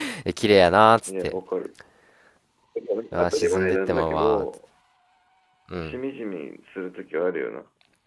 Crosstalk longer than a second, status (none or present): present